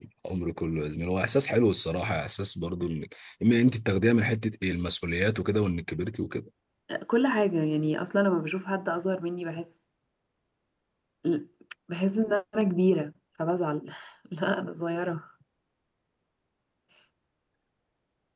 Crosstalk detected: No

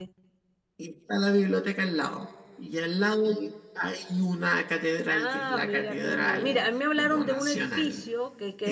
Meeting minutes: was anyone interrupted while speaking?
Yes, from 5.1 s

